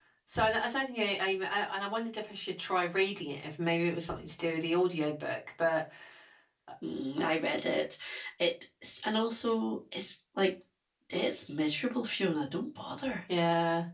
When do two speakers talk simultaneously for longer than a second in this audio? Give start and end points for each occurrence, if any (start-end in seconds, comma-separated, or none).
none